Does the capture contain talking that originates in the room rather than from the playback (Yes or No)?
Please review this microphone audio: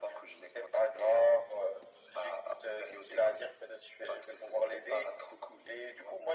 No